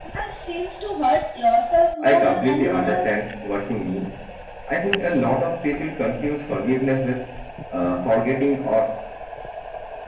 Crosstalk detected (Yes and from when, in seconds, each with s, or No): Yes, from 2.0 s